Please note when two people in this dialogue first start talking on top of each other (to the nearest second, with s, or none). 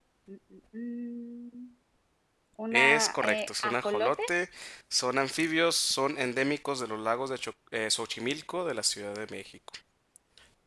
3 s